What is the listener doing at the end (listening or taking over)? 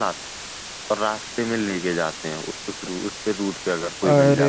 taking over